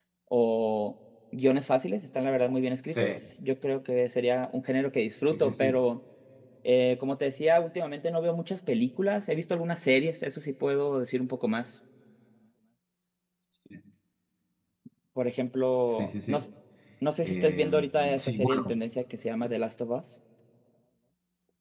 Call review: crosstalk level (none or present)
present